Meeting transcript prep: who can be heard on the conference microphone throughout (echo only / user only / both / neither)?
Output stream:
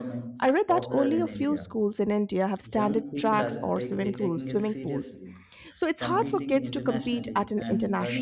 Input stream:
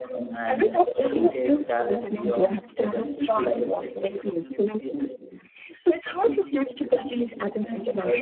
both